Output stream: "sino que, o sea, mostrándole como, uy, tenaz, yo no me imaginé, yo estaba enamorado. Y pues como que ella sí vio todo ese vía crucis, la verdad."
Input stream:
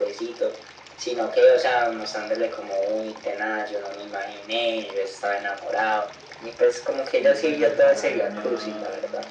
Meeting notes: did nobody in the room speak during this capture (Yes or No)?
No